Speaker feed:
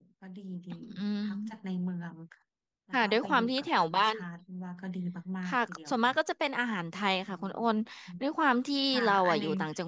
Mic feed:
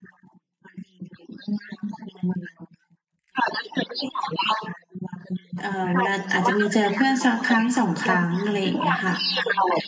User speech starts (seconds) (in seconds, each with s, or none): 5.6 s